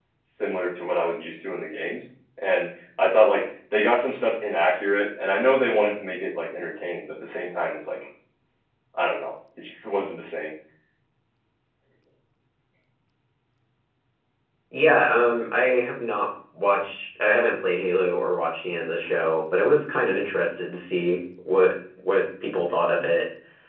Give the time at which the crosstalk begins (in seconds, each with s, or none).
none